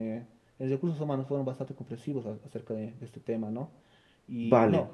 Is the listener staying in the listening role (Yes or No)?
Yes